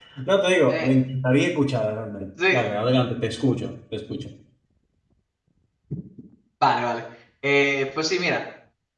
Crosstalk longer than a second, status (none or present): none